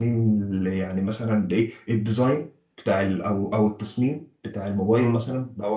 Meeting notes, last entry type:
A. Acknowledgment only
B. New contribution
A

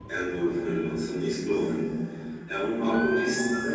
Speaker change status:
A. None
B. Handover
A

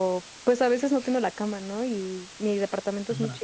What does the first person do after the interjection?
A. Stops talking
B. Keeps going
B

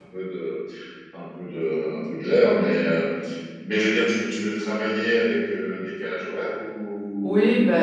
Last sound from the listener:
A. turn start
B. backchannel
A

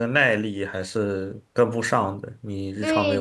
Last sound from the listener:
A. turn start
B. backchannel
A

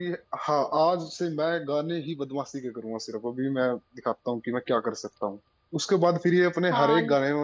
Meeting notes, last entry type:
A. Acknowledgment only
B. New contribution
A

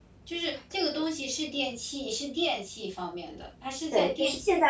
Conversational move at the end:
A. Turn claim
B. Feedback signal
A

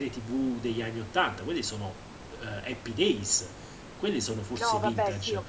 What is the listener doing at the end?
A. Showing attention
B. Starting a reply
B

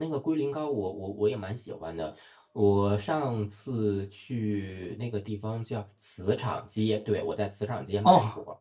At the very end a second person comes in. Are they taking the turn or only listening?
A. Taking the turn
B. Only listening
A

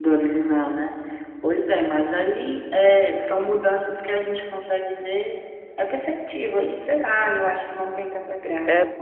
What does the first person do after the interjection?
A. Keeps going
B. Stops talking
B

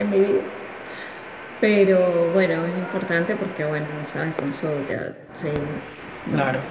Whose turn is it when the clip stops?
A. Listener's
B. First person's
B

